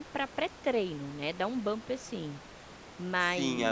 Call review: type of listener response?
taking over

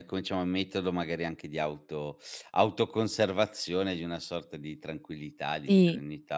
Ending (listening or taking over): taking over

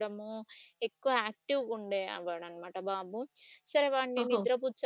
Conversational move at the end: listening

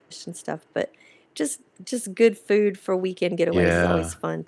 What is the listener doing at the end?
taking over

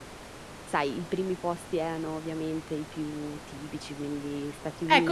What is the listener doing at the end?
taking over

